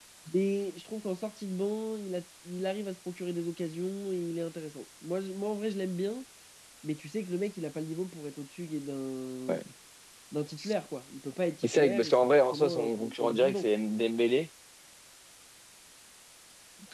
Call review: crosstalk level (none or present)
present